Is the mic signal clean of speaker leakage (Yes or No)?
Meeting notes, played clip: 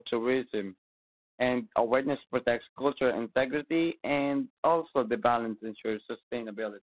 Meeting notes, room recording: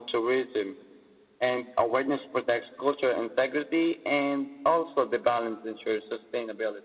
No